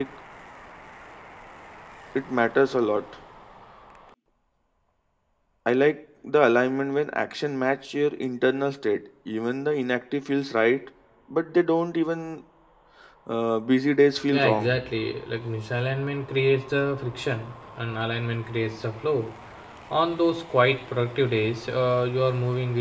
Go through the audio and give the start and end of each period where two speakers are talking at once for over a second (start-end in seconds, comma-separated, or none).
none